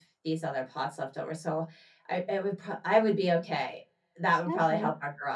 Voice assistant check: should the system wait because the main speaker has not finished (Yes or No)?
No